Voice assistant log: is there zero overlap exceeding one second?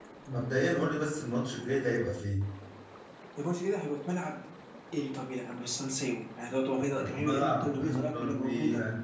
No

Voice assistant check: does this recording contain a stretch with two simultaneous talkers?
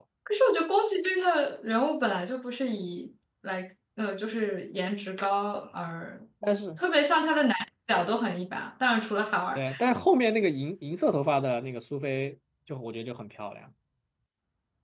No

